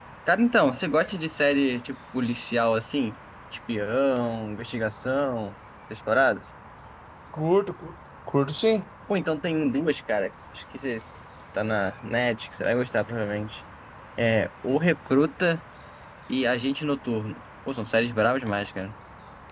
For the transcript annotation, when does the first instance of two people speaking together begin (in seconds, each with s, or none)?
none